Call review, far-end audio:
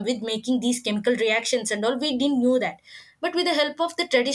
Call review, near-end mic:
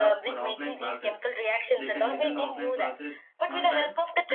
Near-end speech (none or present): present